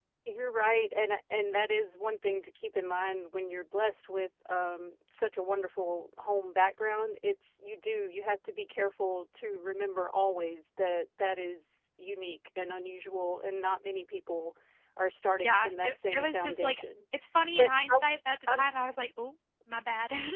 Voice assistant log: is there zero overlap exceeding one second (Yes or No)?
No